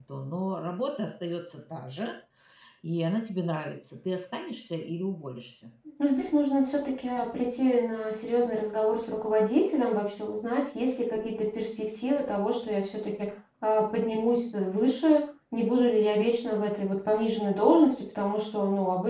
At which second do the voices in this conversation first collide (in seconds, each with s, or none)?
none